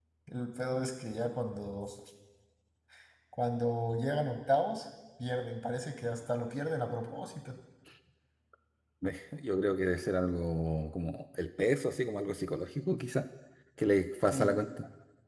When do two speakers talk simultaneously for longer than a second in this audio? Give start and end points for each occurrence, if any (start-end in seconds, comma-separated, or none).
none